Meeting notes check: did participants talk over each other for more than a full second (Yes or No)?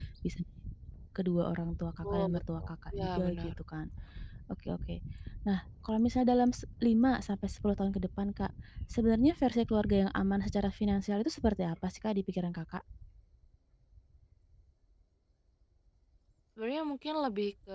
Yes